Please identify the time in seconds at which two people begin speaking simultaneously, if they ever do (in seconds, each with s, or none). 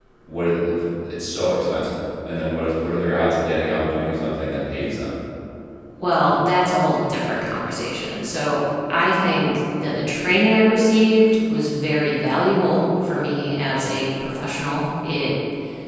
none